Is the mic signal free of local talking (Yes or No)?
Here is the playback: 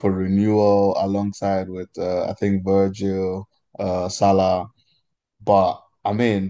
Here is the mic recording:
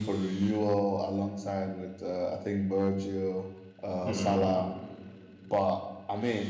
No